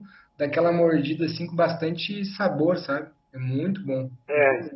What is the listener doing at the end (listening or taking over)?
taking over